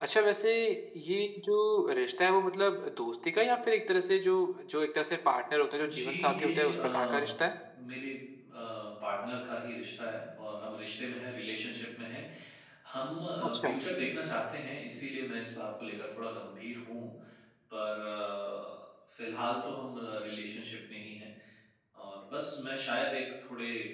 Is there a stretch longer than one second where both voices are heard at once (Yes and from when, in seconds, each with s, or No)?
Yes, from 5.8 s